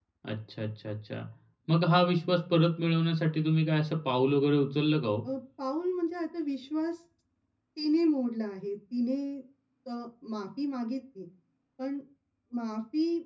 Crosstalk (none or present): none